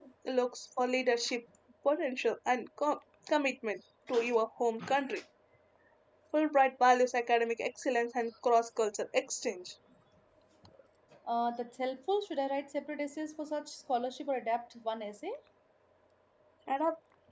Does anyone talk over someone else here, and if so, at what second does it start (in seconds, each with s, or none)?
none